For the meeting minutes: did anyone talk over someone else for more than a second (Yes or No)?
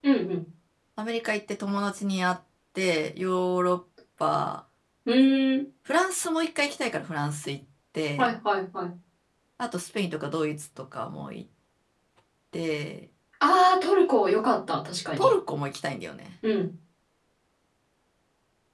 No